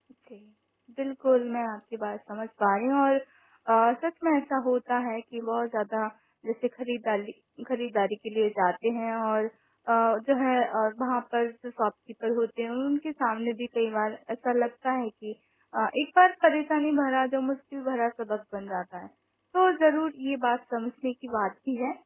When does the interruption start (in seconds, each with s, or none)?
none